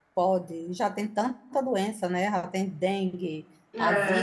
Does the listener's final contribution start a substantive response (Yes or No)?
No